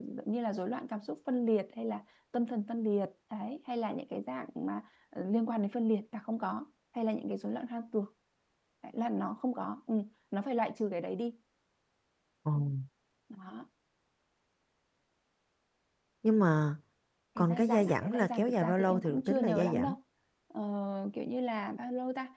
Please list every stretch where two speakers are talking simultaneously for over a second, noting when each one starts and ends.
17.4-19.9

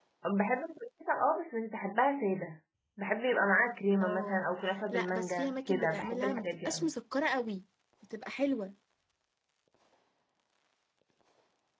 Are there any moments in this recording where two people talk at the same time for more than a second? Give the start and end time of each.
4.9-6.9

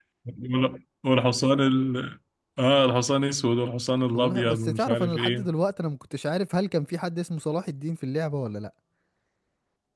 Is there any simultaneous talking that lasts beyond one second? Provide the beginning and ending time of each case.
4.1-5.5

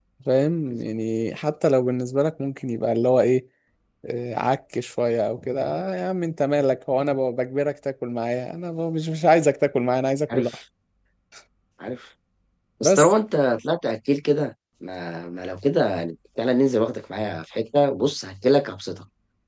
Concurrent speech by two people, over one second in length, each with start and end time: none

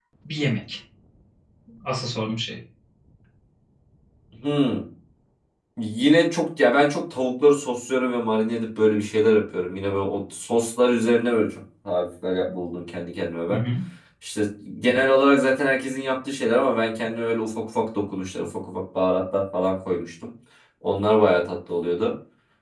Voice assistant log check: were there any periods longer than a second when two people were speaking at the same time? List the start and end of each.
none

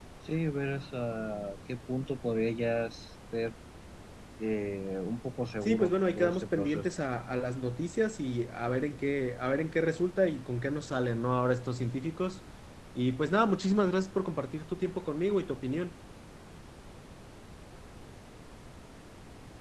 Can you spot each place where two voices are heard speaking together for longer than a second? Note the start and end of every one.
5.6-6.9

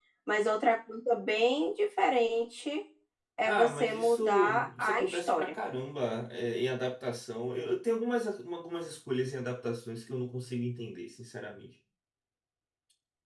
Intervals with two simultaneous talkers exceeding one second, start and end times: 3.4-5.5

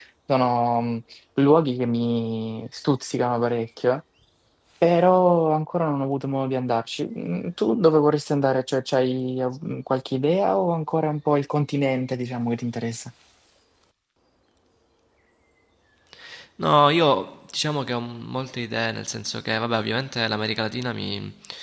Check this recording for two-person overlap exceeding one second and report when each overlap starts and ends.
none

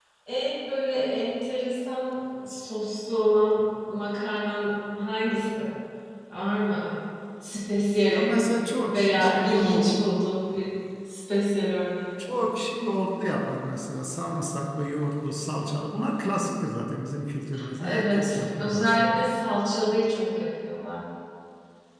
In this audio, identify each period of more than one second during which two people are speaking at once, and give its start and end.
8.9-10.3, 17.8-19.2

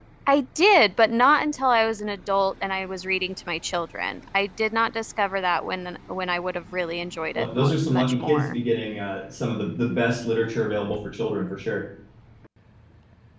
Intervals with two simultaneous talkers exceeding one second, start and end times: 7.3-8.6

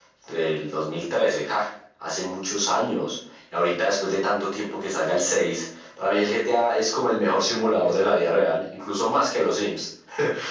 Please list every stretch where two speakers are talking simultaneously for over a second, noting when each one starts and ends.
none

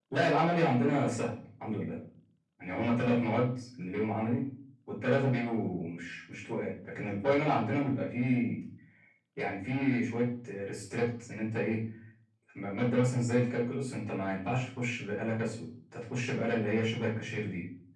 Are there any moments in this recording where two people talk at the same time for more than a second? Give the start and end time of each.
none

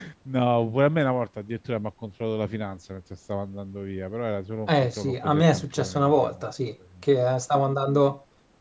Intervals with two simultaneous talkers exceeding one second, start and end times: 4.7-6.4

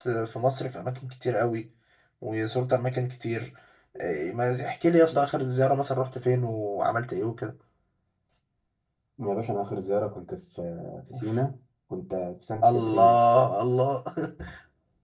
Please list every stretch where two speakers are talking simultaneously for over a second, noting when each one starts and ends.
none

